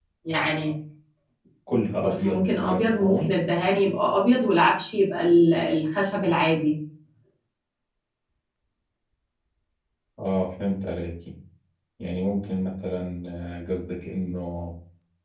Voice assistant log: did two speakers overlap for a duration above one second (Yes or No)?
Yes